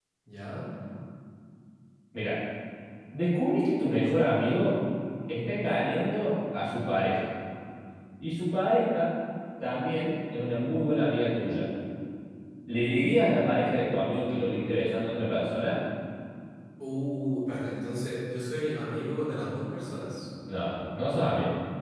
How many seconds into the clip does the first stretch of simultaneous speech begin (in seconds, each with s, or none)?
none